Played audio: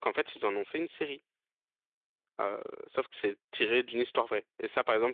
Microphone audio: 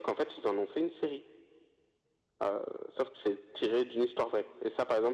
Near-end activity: none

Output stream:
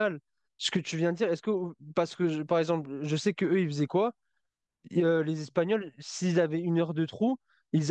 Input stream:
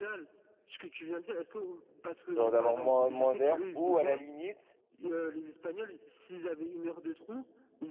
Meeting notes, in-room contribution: present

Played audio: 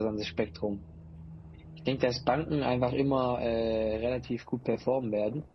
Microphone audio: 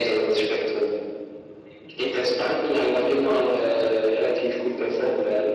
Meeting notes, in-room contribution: none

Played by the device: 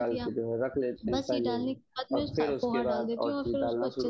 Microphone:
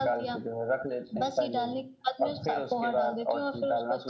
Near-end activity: none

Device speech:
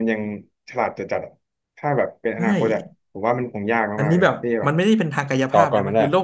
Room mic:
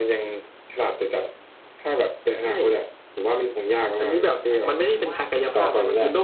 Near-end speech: present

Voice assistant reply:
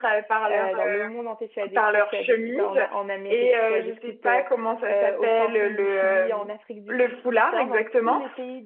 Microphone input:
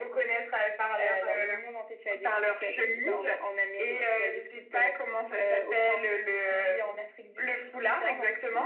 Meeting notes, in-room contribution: none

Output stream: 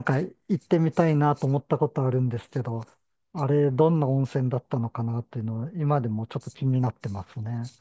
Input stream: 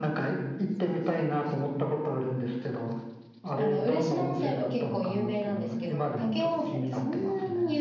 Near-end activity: present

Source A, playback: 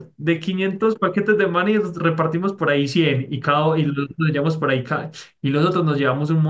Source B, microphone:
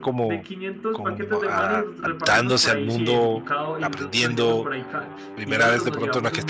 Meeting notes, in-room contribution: present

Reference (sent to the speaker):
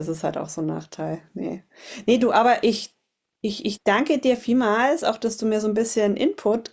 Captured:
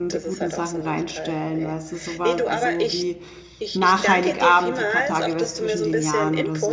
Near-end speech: present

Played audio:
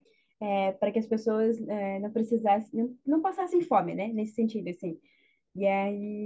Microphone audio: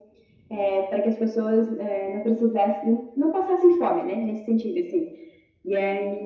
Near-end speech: none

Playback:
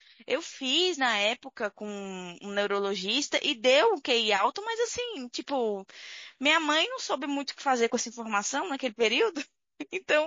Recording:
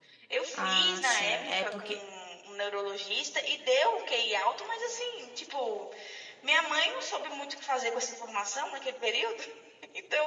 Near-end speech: present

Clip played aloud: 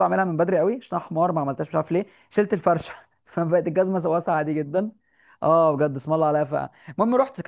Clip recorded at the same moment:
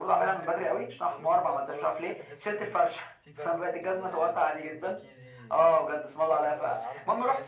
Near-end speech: present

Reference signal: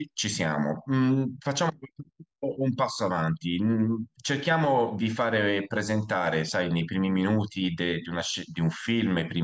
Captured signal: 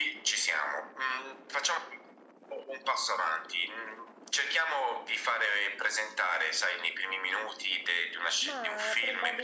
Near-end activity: present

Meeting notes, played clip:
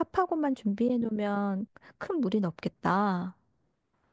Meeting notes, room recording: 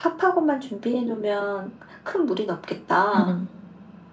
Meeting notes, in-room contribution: present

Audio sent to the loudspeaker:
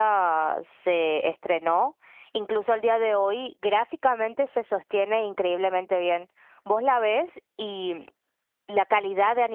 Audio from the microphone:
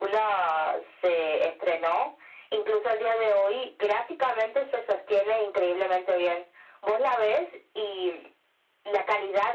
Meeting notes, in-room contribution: none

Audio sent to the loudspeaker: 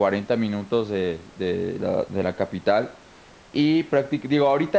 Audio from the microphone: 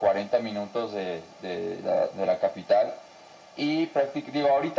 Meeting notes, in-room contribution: none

